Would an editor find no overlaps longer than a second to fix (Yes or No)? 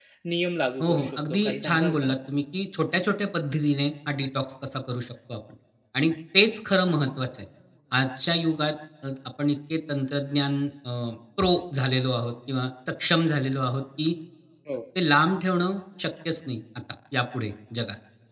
No